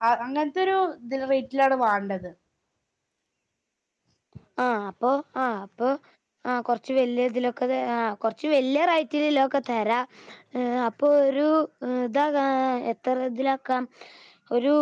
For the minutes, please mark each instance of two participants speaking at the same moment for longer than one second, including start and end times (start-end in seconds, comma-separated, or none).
none